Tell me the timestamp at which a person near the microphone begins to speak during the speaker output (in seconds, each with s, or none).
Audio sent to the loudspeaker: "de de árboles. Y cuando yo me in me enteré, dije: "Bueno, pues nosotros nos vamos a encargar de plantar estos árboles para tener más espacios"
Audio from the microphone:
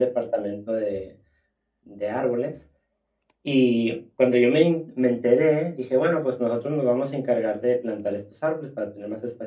none